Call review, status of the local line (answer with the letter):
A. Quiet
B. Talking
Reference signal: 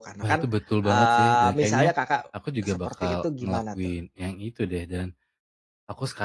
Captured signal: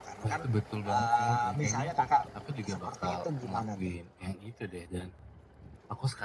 A